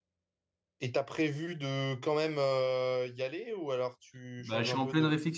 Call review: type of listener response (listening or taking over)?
taking over